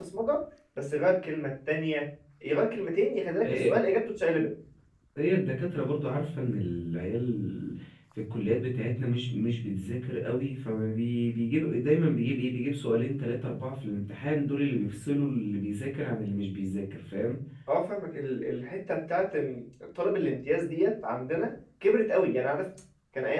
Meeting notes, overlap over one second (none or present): none